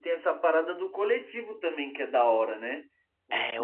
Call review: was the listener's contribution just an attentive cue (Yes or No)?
No